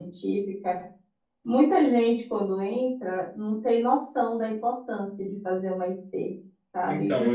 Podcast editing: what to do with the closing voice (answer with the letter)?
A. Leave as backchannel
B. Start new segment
A